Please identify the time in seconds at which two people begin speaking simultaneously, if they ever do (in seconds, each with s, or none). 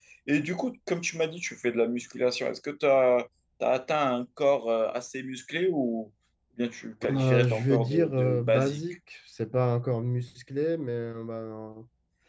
7.1 s